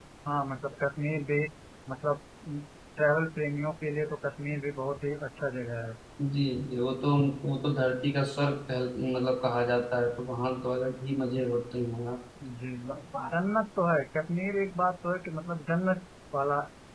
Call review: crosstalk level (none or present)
none